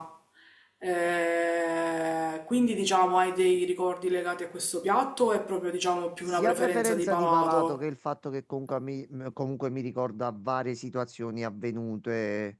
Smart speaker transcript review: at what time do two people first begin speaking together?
6 s

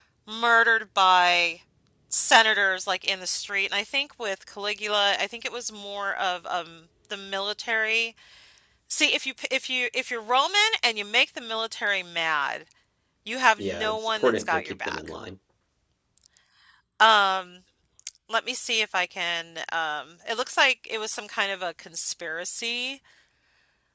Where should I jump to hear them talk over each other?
14 s

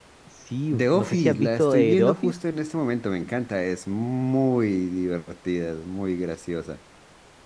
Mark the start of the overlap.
1 s

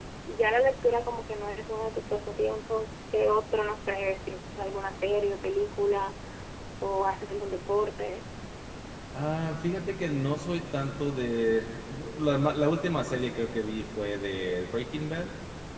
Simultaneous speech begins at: none

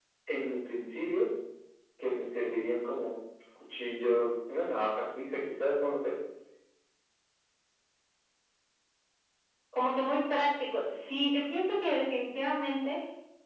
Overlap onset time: none

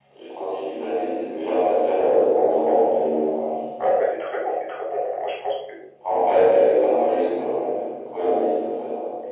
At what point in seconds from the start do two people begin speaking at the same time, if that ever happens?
none

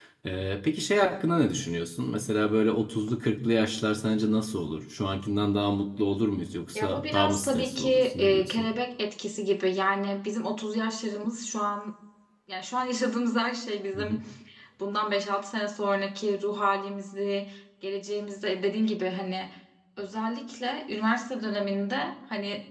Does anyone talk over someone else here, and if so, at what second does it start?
7 s

